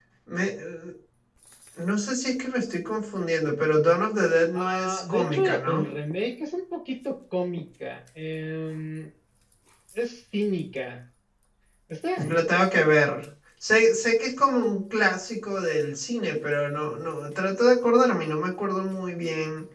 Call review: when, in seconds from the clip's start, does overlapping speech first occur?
5 s

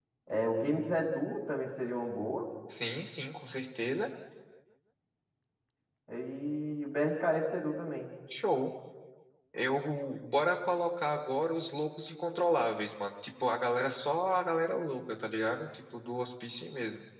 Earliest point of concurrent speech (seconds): none

